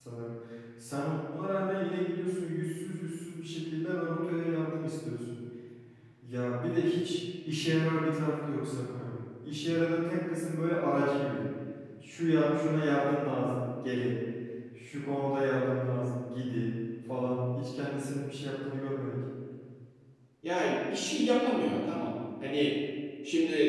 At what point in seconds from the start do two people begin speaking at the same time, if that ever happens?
none

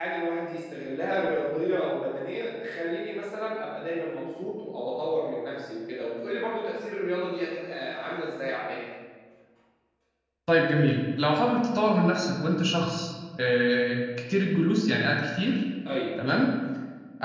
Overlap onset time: none

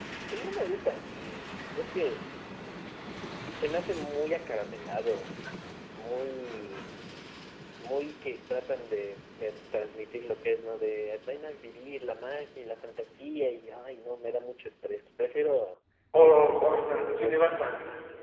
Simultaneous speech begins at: 16.1 s

